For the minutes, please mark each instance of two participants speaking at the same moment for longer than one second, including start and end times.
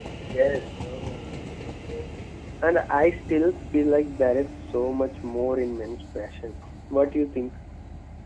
none

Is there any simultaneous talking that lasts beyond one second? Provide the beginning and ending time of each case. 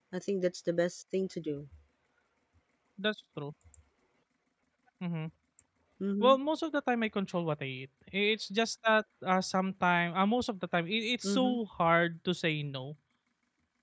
none

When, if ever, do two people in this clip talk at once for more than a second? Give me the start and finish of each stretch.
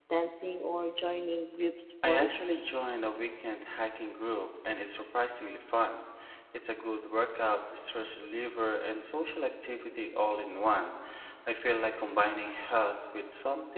none

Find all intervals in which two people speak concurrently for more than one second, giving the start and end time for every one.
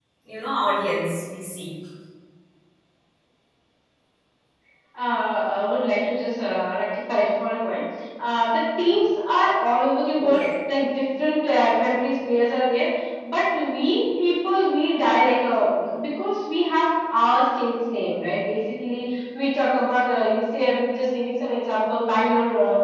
none

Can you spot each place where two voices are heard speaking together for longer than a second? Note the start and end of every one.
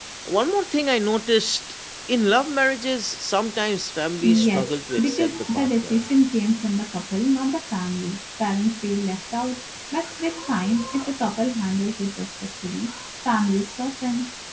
4.2-6.0

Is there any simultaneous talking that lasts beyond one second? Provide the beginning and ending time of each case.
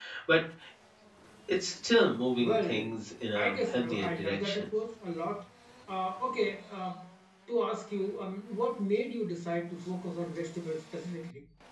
3.4-4.7

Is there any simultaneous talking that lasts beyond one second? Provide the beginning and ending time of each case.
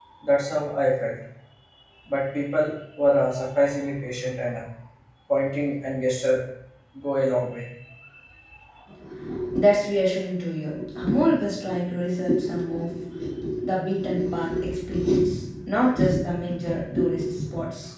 none

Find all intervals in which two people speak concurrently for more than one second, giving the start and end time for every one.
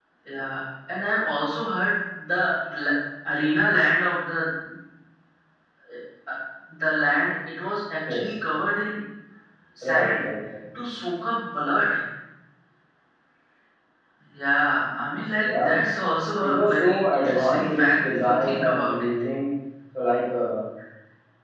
16.4-19.1

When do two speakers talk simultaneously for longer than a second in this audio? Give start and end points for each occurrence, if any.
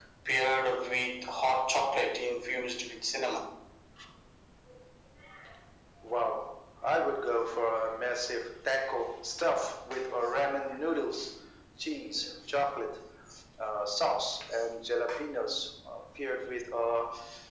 none

